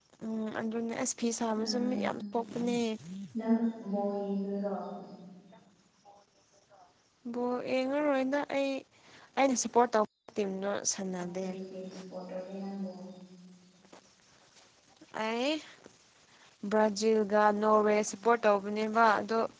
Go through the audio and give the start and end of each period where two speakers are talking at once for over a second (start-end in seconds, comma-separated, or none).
none